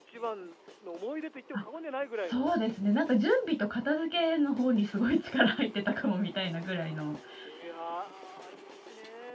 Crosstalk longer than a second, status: none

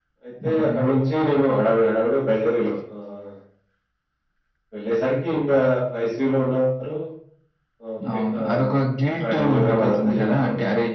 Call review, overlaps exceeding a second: present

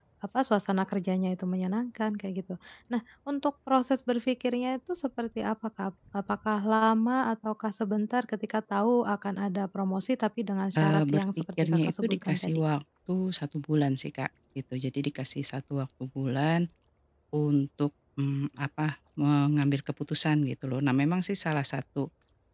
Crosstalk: present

